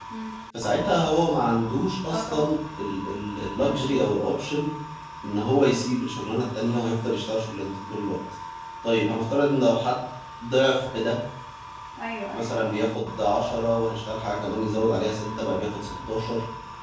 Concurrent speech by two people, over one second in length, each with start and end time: none

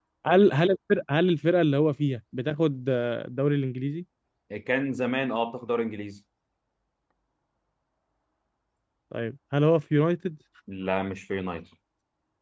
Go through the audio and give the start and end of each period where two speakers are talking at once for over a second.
none

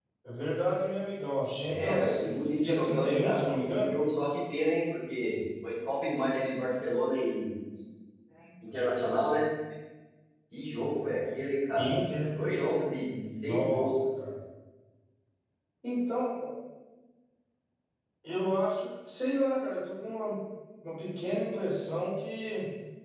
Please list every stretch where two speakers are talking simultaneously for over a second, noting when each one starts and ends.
1.7-3.9

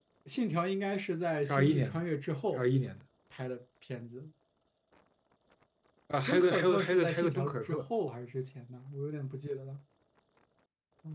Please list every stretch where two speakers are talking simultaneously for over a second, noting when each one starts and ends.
6.3-7.8

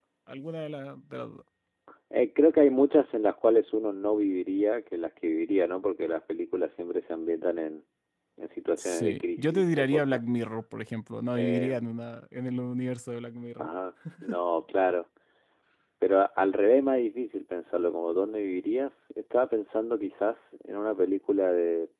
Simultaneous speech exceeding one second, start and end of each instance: 8.8-10.2

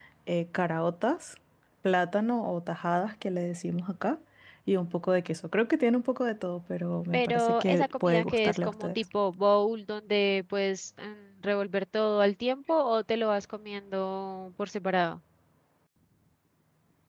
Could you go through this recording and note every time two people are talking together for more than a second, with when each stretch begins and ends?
7.1-8.9

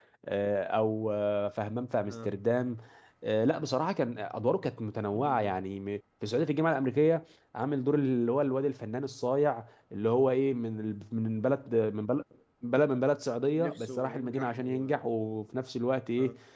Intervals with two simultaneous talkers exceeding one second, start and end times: 13.6-15.0

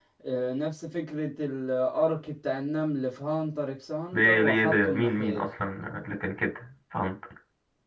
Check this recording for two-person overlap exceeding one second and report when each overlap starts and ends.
4.1-5.5

